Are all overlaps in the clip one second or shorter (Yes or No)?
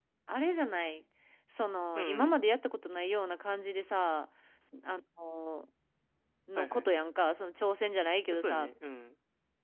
Yes